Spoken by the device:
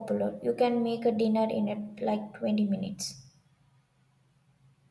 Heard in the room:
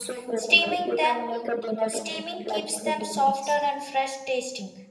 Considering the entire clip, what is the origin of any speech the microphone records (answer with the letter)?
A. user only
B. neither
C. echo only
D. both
D